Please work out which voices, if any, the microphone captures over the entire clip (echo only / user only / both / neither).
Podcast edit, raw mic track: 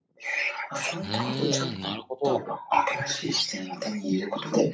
both